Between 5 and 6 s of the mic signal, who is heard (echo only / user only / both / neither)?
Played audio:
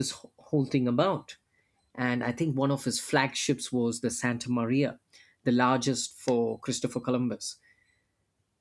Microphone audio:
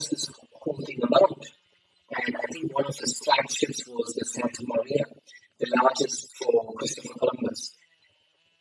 echo only